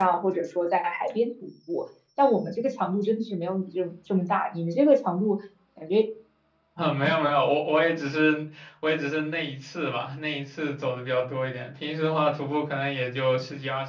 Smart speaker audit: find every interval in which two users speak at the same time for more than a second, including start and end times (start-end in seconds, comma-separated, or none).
none